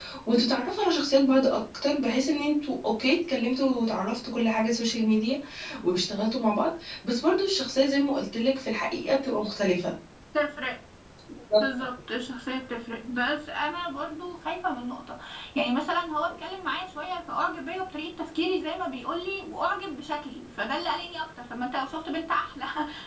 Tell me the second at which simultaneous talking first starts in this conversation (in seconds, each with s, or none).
none